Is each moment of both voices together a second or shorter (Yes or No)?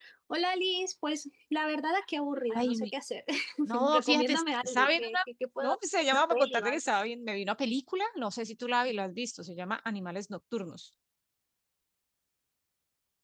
No